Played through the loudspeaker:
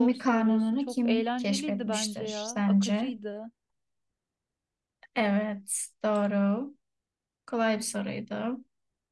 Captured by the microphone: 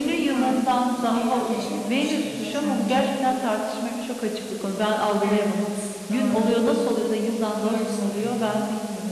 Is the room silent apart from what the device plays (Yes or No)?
No